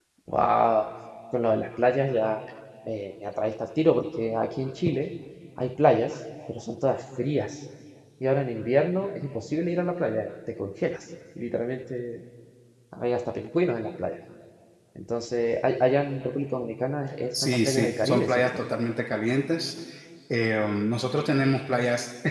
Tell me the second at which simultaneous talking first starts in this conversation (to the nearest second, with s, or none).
17 s